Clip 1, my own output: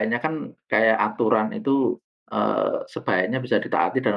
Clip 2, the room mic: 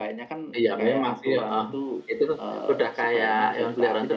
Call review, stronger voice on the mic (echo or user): user